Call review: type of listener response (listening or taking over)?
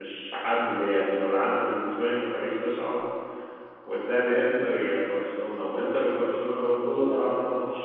listening